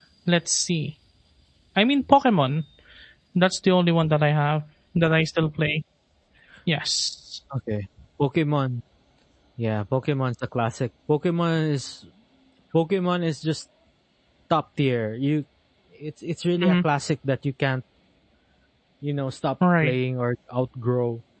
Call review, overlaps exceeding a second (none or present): none